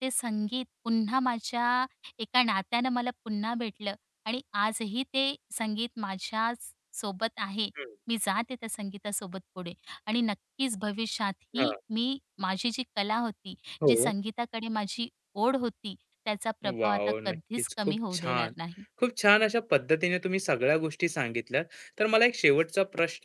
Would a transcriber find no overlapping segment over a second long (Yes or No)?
No